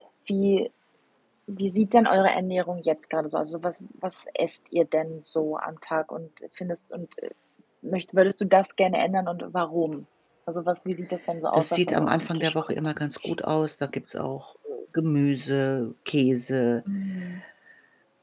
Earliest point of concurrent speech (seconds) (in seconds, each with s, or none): 11.5 s